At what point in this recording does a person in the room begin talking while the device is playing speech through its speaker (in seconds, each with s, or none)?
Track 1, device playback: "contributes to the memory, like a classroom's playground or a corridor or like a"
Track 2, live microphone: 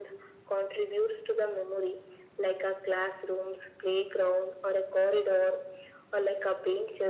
none